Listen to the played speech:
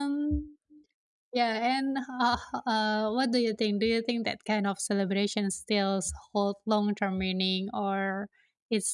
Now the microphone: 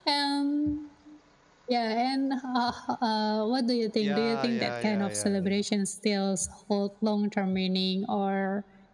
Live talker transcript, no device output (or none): Yeah, yeah, yeah, yeah.